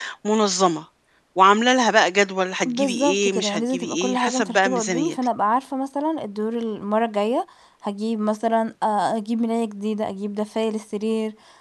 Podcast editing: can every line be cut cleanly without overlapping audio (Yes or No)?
No